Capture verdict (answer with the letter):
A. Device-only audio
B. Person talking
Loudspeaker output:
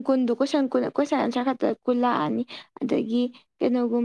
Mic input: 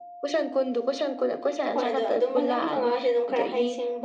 B